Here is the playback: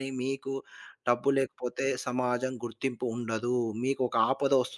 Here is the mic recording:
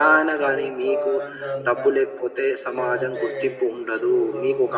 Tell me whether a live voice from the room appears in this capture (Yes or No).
Yes